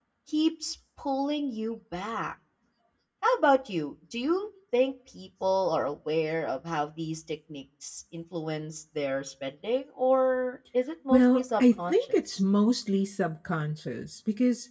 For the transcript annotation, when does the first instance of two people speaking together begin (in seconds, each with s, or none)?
11.1 s